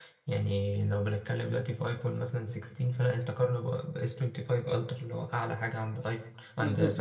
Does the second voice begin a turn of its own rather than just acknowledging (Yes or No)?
Yes